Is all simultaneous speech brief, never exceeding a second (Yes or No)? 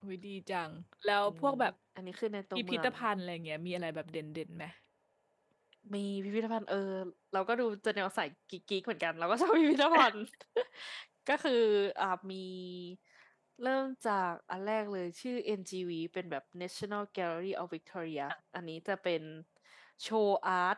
Yes